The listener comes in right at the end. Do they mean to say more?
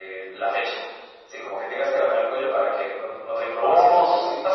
Yes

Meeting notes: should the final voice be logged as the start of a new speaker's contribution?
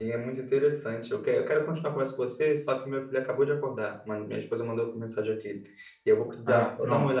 No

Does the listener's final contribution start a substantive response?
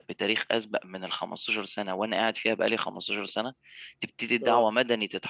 No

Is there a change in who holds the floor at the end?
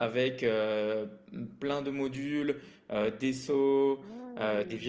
No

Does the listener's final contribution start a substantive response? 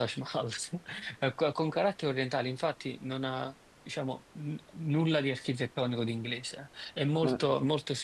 No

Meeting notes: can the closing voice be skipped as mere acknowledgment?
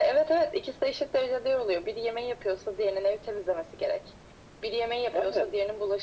Yes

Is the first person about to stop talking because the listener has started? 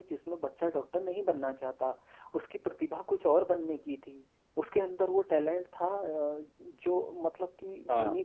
No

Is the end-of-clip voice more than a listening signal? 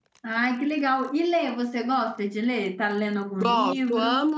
Yes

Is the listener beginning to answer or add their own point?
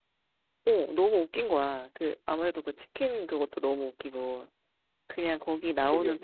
No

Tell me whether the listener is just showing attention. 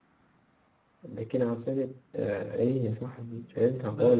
No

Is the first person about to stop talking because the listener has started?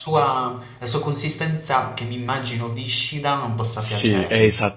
Yes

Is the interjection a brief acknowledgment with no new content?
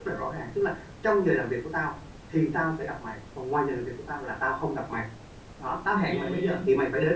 Yes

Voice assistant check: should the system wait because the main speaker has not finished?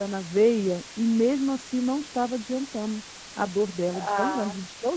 No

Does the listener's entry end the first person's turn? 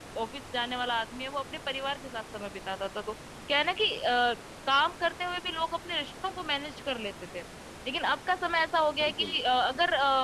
No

